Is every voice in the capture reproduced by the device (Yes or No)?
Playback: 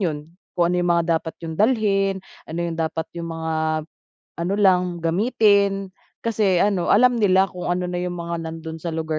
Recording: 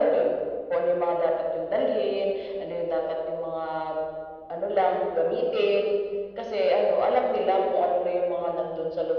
Yes